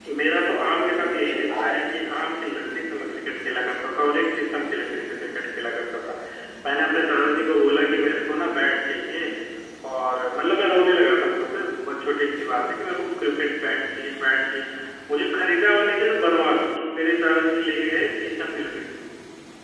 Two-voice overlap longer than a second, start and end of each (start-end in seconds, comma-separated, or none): 0.5-2.1